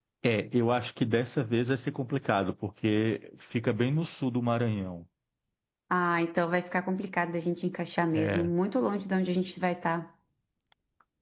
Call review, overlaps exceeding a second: none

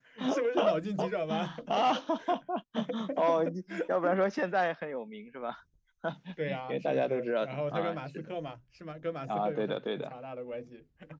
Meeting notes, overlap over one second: present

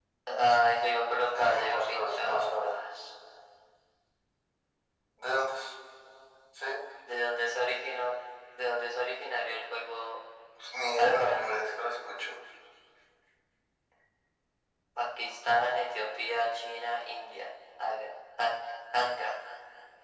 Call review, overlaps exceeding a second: present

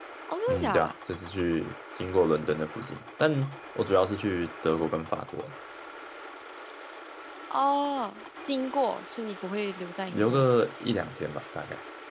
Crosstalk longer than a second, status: none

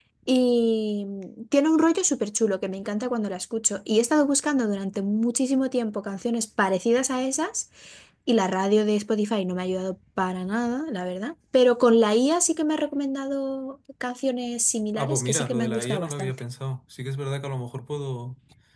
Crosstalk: present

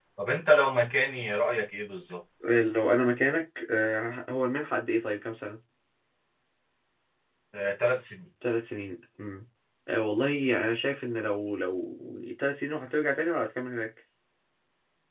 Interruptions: none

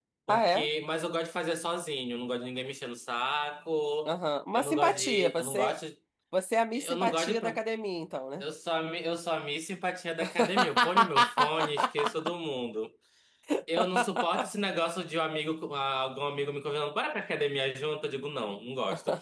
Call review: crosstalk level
present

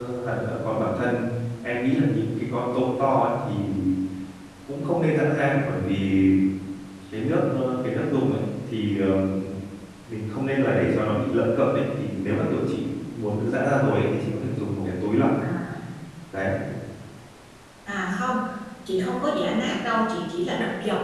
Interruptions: none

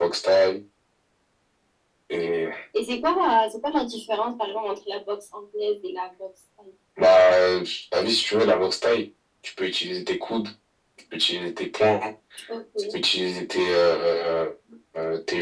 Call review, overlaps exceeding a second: none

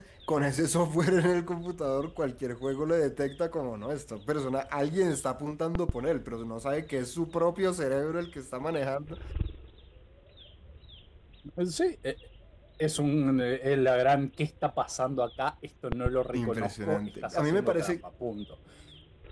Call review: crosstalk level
present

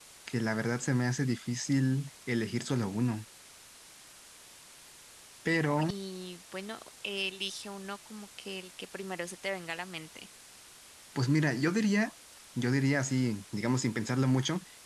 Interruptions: none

